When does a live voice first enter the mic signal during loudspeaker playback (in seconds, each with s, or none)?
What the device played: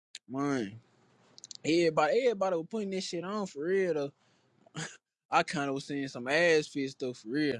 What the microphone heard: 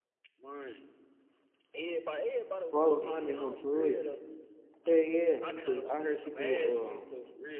2.7 s